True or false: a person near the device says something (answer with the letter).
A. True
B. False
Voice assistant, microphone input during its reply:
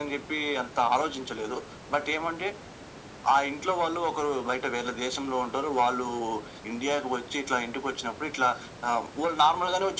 B